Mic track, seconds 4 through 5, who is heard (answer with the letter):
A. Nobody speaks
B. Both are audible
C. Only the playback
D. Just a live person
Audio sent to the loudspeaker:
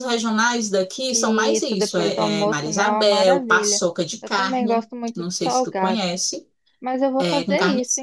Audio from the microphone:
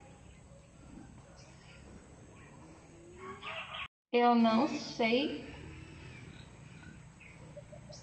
D